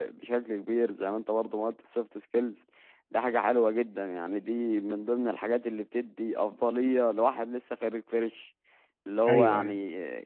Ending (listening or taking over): listening